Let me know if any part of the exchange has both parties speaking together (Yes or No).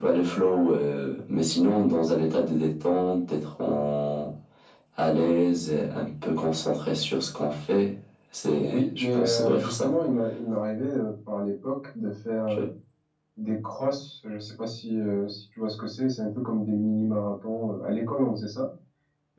Yes